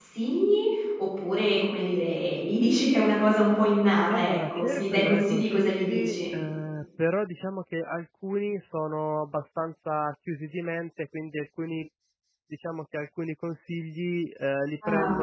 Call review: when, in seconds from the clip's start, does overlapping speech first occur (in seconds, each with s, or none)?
4.1 s